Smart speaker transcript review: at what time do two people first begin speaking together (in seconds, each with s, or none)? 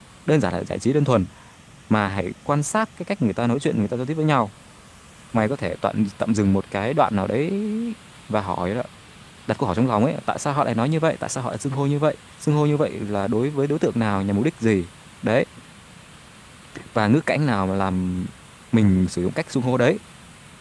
none